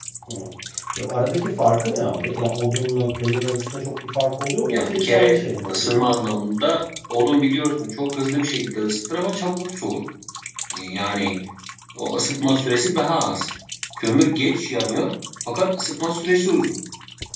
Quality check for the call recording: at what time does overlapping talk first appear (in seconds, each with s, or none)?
4.7 s